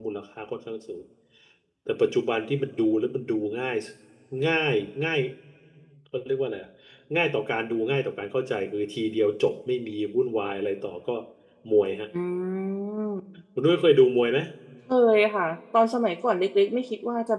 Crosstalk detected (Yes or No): No